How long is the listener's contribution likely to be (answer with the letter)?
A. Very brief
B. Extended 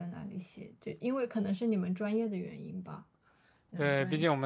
B